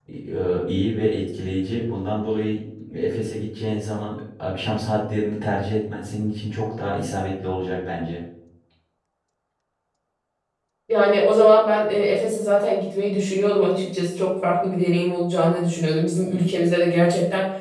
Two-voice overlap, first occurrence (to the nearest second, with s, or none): none